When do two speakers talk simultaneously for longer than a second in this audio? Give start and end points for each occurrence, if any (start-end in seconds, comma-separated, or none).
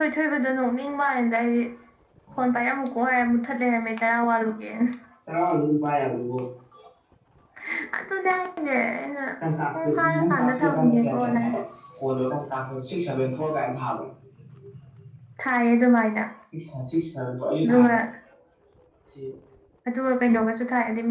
9.7-11.5